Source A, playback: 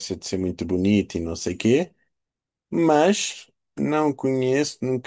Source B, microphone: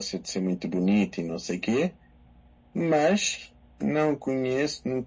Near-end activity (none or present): none